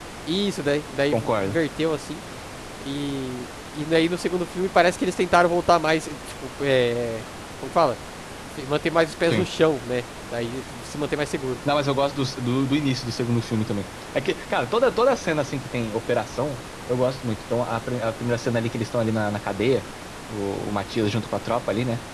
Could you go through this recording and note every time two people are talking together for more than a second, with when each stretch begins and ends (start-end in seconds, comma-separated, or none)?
none